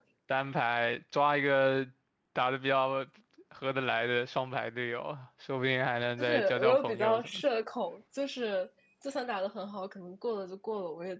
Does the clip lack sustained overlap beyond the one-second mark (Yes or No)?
No